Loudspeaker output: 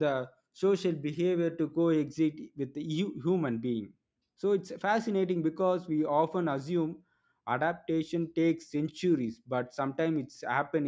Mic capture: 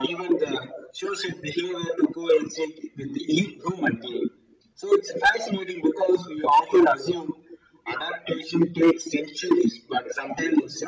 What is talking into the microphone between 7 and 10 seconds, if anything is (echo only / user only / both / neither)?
echo only